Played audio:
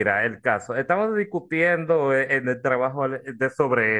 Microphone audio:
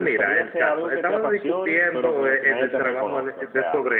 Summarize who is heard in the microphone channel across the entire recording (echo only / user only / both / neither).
both